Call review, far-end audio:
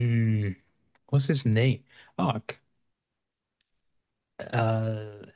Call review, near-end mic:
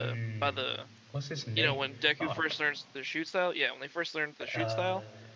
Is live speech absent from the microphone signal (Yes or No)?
No